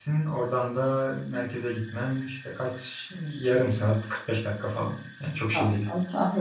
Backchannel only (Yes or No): No